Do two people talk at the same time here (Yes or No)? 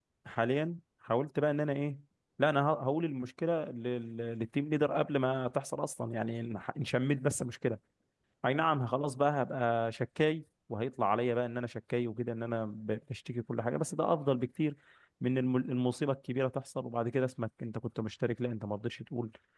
No